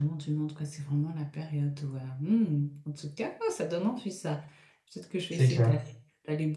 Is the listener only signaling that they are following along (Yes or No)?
Yes